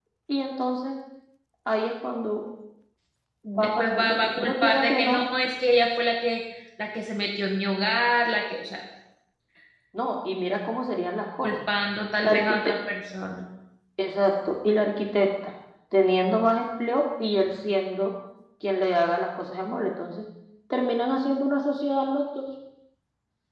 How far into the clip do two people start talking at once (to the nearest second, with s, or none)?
4 s